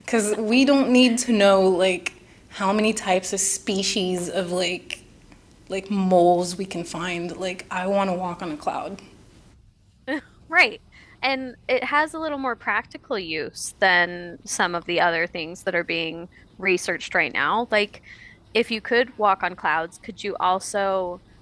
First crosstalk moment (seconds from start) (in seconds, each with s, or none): none